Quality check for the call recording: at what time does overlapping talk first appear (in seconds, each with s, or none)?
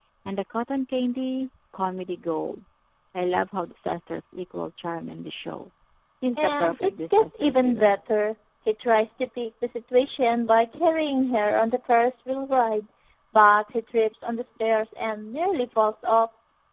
6.4 s